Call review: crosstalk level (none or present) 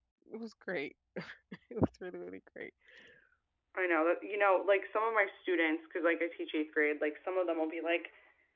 none